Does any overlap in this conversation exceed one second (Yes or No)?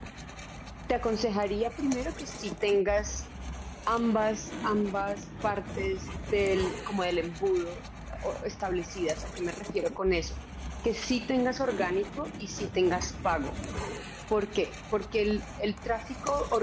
No